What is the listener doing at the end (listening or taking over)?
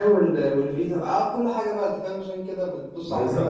taking over